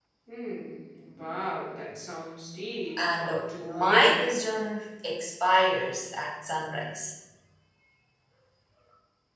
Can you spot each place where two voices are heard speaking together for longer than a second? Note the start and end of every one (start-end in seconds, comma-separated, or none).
3.0-4.3